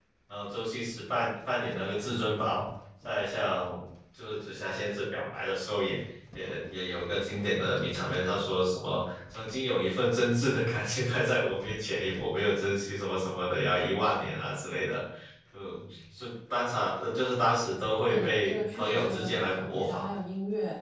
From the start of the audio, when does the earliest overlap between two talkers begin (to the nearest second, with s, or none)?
18 s